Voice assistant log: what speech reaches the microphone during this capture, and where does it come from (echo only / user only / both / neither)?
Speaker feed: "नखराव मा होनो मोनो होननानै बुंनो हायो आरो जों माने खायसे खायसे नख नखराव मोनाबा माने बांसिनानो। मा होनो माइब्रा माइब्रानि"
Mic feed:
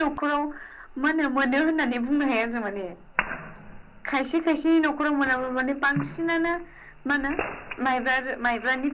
echo only